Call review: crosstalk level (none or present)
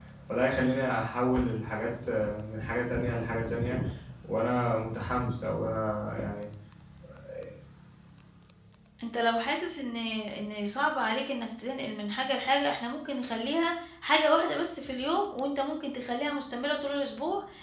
none